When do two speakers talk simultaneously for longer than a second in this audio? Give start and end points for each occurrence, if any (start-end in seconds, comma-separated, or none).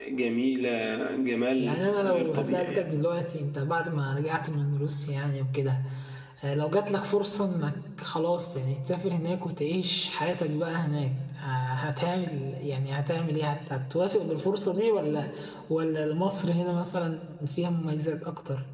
1.6-2.8